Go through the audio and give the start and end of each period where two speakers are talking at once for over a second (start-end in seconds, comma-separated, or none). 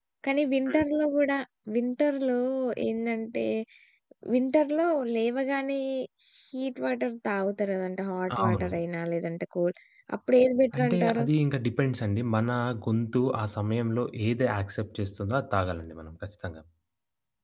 none